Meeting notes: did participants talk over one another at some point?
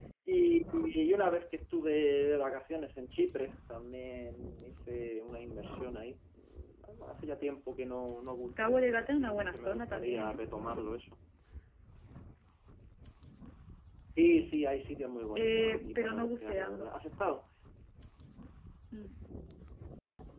Yes, from 8.6 s

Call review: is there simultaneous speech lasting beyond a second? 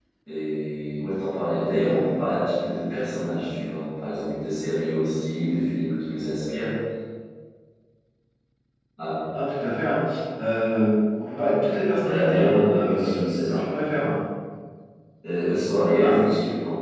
Yes, from 12.0 s

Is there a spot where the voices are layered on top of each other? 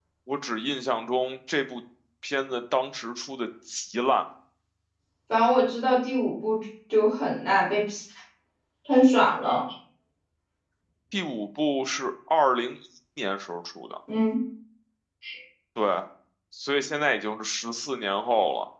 No

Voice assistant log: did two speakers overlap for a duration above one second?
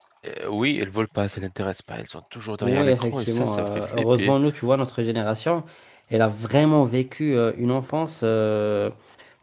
Yes, from 2.6 s

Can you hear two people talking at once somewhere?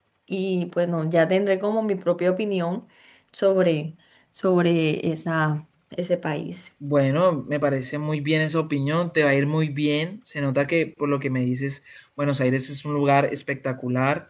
No

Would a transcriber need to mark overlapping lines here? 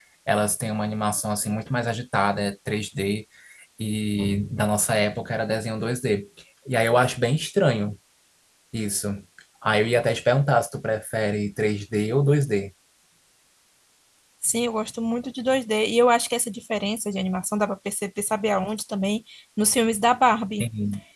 No

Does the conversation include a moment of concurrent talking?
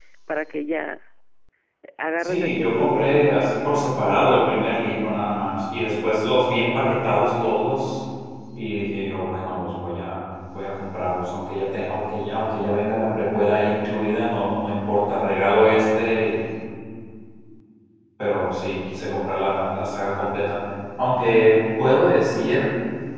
Yes, from 2.2 s

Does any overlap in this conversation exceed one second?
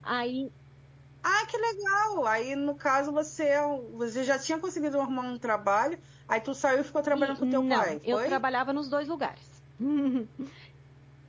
Yes, from 7.1 s

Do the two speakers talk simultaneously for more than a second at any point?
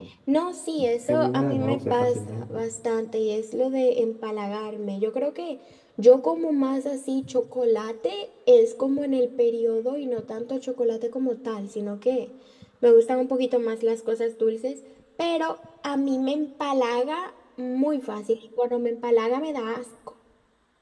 Yes, from 1.1 s

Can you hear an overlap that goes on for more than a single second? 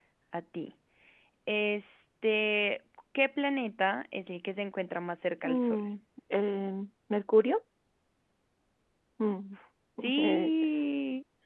No

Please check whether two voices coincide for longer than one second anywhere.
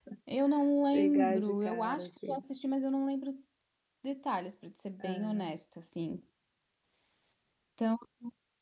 Yes, from 0.9 s

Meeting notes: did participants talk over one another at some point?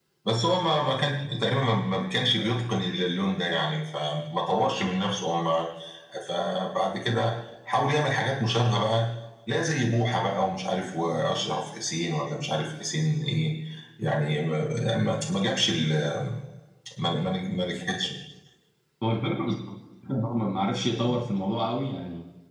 No

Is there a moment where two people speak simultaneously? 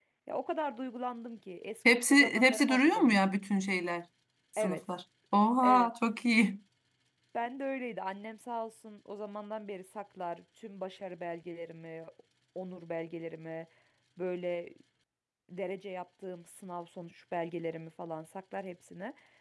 Yes, from 1.9 s

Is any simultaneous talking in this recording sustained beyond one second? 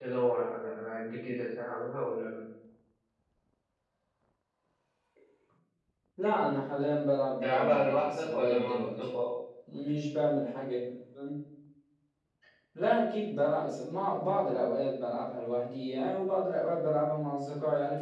Yes, from 7.4 s

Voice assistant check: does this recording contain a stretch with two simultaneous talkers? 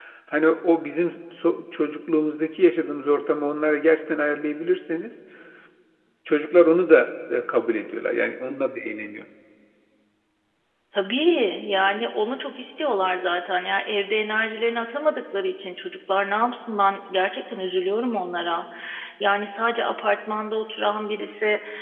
No

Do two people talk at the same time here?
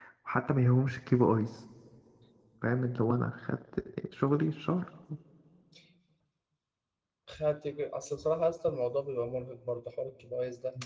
No

